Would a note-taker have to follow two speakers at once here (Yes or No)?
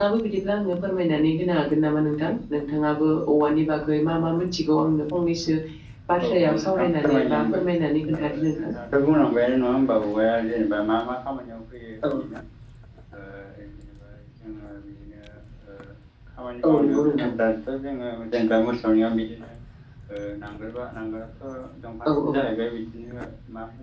Yes